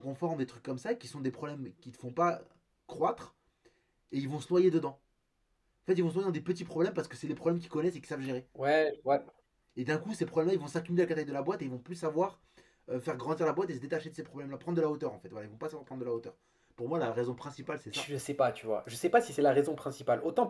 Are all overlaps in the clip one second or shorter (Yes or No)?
Yes